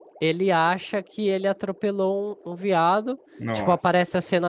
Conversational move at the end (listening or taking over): listening